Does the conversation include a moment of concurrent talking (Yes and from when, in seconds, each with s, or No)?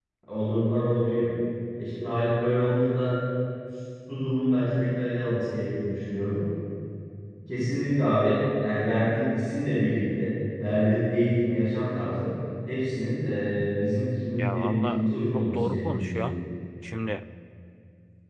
Yes, from 14.4 s